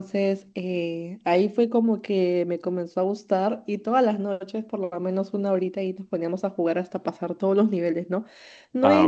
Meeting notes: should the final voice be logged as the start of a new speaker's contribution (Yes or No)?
No